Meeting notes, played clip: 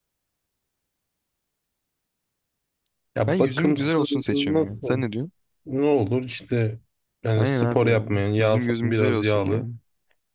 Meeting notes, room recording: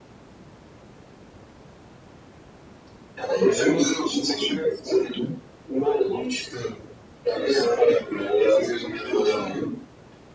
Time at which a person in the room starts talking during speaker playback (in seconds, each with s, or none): 3.4 s